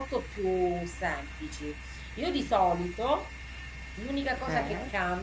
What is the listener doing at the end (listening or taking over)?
listening